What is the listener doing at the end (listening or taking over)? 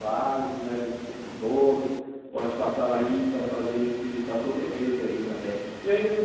taking over